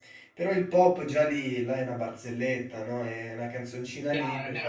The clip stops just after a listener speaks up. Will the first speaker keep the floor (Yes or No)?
No